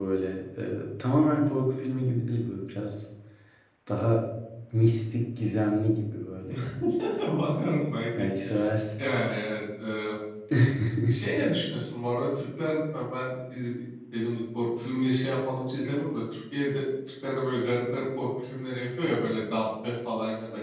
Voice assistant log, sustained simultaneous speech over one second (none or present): none